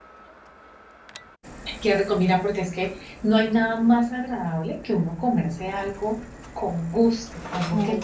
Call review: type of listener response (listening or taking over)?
listening